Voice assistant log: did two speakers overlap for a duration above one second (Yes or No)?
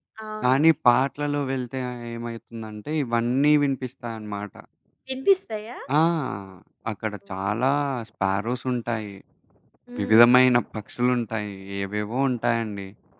No